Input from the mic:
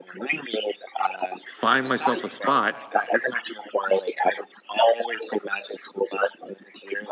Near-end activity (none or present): present